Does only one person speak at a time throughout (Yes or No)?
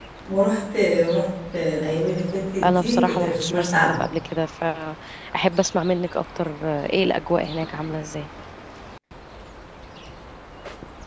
No